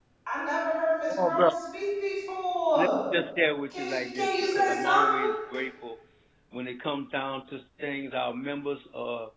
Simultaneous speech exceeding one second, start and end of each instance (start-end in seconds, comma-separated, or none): 3.7-5.2